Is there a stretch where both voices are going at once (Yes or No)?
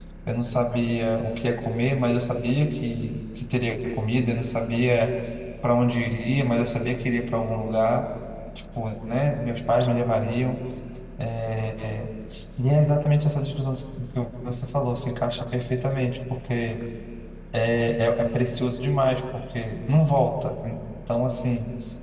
No